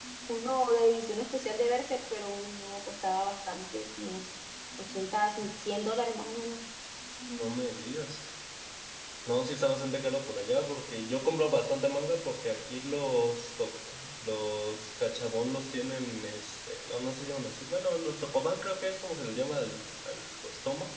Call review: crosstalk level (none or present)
none